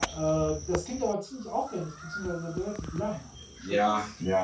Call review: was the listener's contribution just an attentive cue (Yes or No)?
No